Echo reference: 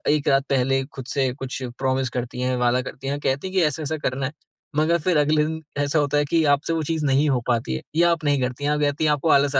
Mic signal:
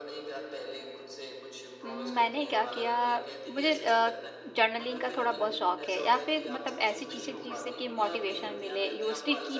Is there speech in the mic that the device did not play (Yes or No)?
Yes